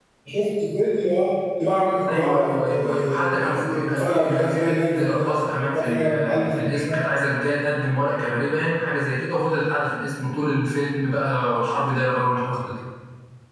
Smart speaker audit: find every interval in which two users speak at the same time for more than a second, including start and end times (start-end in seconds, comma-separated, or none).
2.1-7.0